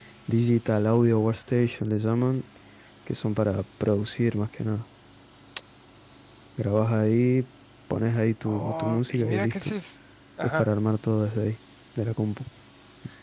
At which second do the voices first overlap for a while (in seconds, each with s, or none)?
8.5 s